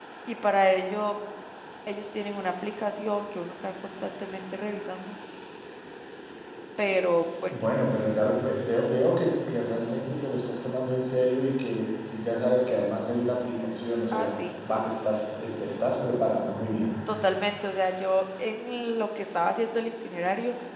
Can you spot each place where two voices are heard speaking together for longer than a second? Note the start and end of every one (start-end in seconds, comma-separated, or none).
none